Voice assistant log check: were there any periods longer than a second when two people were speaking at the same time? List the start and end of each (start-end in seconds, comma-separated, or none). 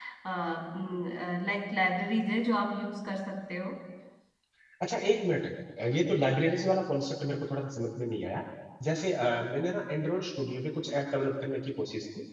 none